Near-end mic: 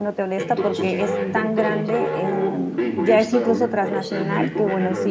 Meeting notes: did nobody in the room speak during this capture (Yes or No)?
No